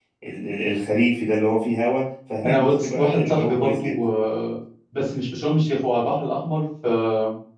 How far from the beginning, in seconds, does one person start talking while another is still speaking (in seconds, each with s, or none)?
2.4 s